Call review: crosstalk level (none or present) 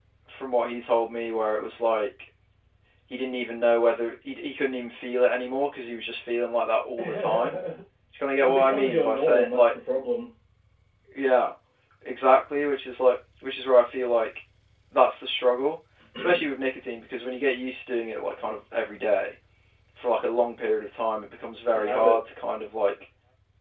present